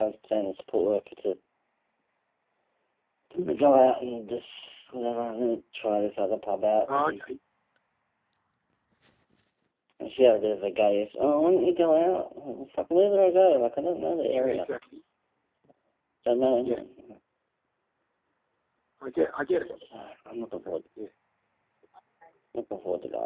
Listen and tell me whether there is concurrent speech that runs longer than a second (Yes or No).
No